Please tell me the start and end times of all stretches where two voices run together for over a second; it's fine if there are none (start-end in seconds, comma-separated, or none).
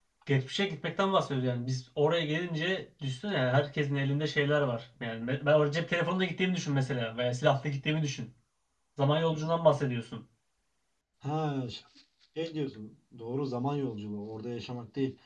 none